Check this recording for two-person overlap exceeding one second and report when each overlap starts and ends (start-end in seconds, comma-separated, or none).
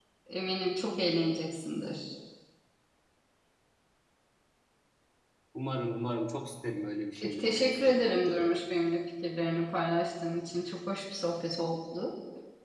7.2-8.5